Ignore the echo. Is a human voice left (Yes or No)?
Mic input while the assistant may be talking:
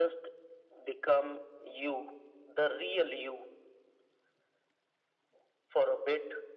No